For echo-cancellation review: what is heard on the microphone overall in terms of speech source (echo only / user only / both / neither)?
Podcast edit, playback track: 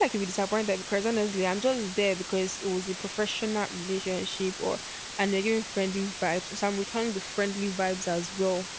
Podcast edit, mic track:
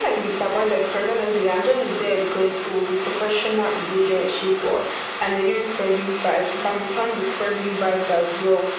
echo only